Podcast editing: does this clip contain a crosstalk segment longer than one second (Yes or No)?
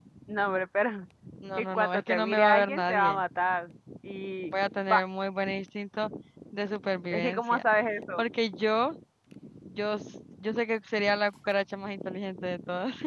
Yes